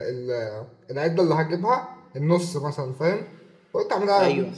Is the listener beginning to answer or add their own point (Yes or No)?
No